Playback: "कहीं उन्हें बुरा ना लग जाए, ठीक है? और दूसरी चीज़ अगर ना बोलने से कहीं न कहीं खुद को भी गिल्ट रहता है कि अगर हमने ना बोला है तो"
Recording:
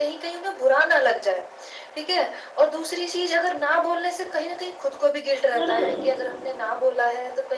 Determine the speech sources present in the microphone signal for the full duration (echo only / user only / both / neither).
both